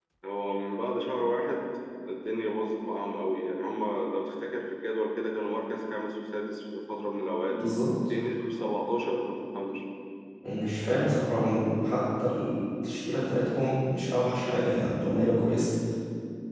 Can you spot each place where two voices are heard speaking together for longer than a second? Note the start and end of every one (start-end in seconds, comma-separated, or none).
none